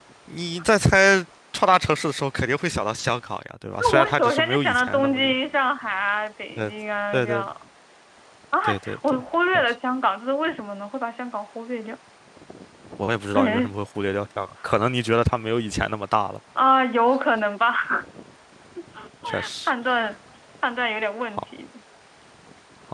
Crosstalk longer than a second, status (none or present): present